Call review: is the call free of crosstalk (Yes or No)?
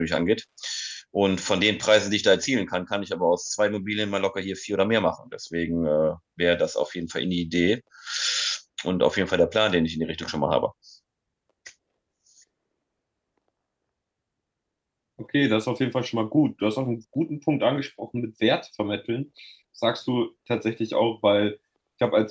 Yes